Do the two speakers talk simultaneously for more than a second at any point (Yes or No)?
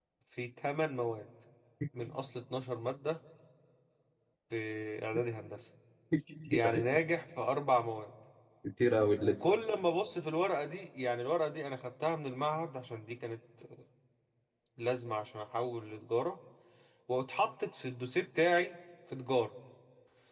No